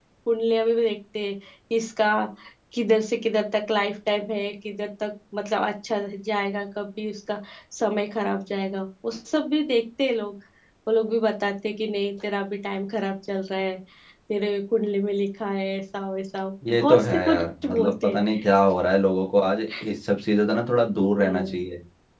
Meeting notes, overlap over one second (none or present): present